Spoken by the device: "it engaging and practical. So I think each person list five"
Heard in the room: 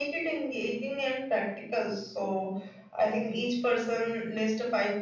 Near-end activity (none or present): none